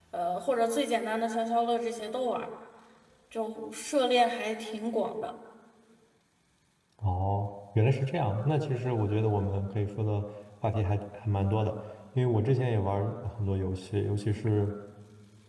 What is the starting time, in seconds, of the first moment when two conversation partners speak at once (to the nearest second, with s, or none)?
none